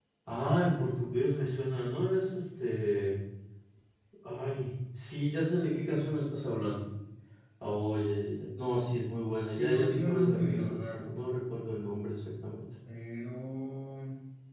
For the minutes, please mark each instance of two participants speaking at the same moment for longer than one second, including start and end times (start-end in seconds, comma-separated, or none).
9.6-11.2